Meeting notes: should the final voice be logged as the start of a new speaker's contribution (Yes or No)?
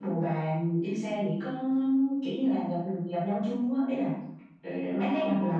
Yes